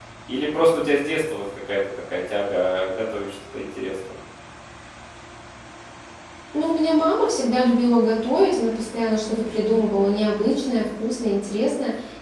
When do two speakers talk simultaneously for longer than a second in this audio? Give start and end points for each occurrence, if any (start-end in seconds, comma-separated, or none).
none